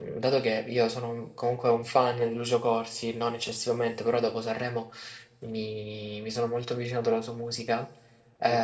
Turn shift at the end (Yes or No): No